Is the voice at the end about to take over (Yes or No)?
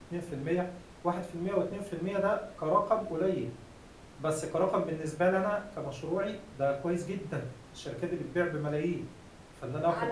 Yes